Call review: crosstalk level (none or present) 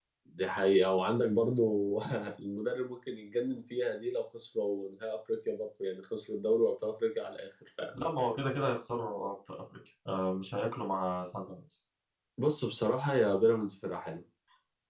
none